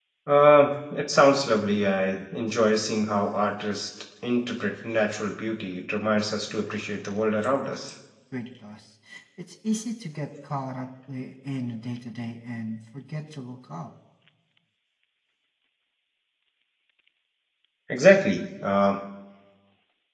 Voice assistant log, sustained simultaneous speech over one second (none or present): none